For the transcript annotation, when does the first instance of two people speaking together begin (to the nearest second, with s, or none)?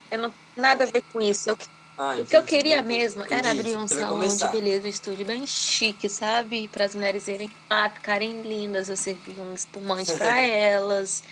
2 s